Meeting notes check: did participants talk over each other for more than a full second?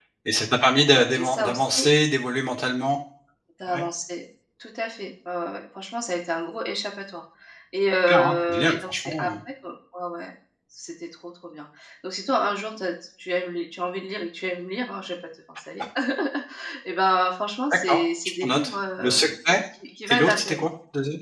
Yes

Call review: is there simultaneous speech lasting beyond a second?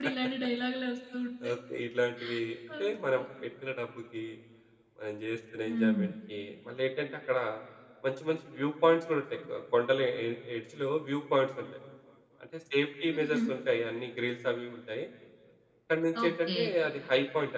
No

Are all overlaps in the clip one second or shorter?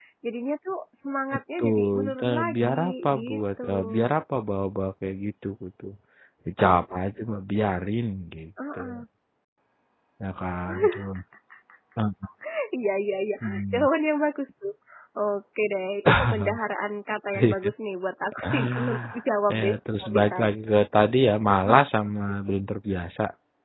No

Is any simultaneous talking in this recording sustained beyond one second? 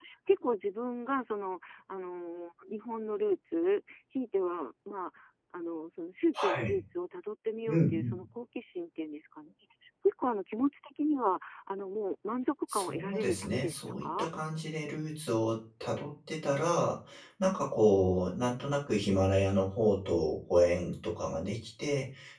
Yes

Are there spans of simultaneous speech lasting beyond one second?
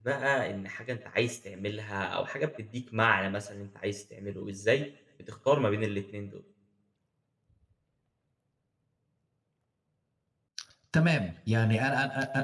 No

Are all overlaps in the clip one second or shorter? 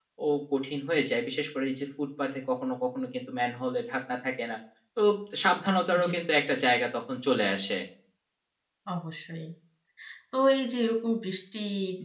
Yes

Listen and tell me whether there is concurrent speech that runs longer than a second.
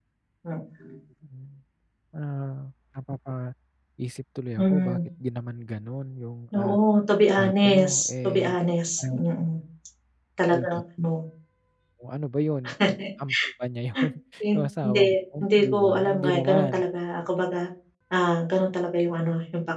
Yes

